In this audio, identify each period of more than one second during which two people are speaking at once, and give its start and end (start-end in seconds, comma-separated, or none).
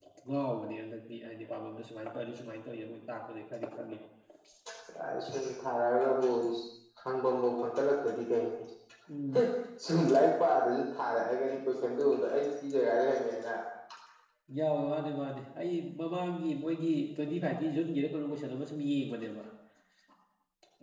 none